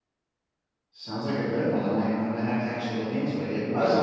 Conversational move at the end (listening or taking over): listening